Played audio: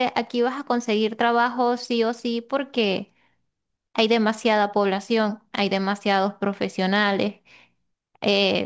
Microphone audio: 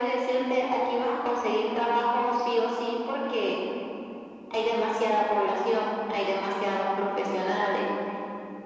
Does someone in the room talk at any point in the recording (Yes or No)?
No